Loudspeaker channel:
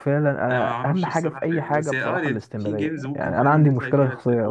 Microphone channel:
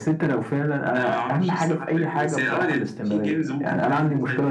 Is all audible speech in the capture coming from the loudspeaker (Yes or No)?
Yes